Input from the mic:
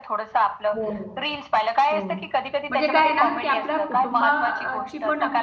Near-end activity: present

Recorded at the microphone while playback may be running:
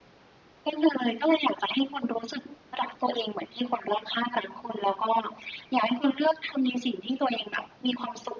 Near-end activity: none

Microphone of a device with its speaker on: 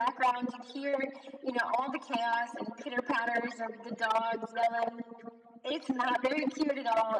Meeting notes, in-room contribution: none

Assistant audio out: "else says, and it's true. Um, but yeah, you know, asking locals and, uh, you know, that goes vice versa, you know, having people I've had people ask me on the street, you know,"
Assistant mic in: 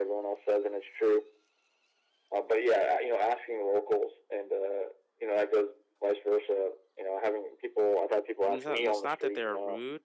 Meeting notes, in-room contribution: present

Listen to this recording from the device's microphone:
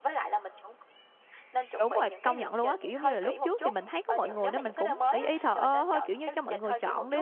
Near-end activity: present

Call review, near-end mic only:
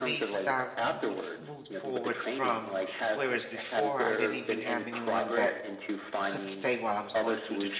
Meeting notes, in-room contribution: present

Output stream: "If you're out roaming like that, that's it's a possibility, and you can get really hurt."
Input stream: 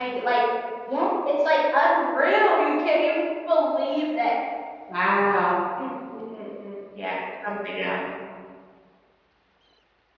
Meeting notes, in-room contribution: present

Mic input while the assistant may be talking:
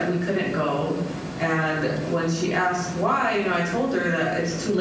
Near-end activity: none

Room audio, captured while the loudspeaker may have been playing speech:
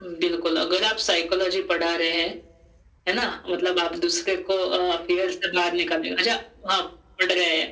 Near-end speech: none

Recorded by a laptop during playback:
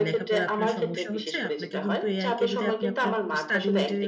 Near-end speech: present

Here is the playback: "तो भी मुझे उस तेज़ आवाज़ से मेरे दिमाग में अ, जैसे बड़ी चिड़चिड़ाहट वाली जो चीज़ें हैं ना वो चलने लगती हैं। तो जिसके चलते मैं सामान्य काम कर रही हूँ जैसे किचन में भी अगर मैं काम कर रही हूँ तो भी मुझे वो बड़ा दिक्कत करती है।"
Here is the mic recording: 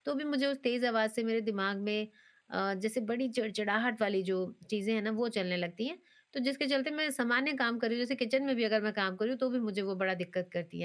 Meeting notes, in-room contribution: none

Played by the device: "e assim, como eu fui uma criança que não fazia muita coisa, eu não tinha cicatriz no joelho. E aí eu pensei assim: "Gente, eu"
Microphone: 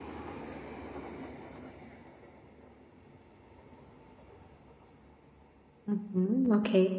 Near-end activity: present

